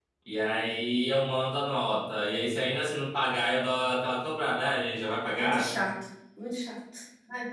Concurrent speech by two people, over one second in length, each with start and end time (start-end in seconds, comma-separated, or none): none